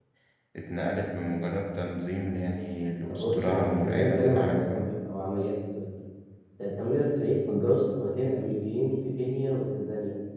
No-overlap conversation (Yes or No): No